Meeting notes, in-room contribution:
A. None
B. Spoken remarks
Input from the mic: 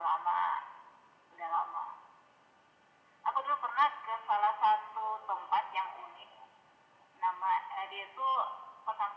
A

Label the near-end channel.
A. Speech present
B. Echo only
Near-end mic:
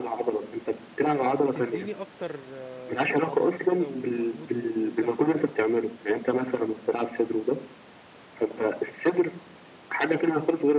A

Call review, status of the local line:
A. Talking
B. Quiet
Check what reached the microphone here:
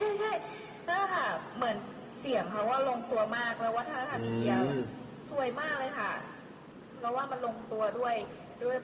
A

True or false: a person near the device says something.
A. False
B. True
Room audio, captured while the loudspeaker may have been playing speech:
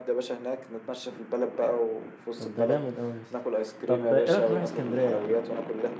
B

